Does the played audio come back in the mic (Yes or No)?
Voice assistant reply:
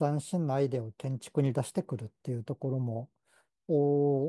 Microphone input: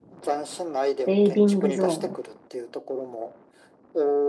Yes